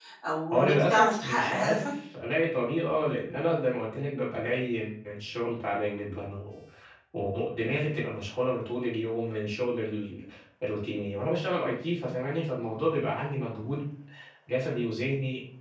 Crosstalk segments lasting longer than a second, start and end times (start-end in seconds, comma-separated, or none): 0.5-1.9